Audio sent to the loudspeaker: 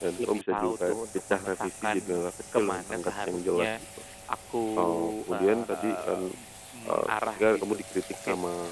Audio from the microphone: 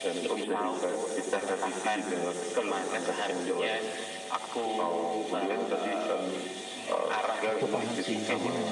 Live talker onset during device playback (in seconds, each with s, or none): 7.4 s